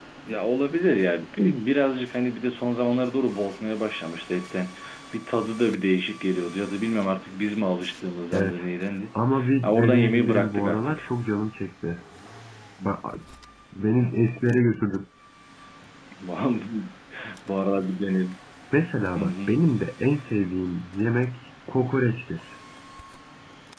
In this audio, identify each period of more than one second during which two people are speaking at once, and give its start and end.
9.6-11.1

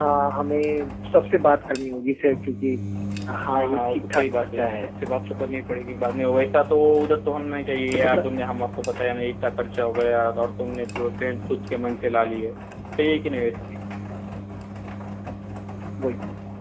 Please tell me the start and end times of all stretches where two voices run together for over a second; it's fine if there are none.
3.5-4.7

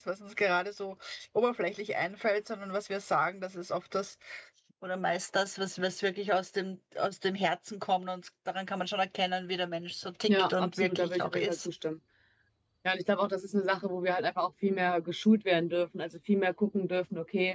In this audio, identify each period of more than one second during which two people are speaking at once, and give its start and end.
10.3-11.7

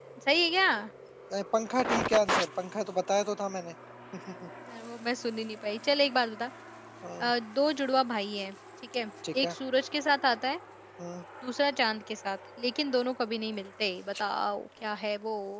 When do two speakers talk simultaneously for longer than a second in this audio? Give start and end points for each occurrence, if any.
none

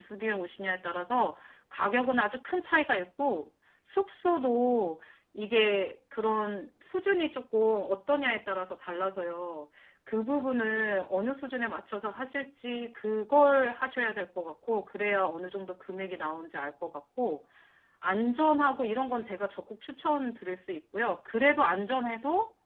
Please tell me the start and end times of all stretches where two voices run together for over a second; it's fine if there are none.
none

